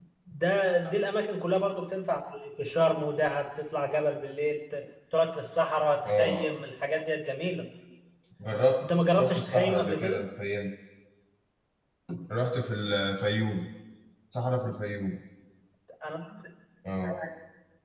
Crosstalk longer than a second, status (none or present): present